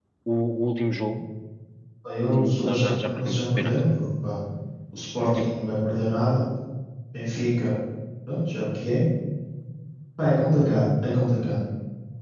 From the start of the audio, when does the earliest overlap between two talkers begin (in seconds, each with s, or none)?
2.3 s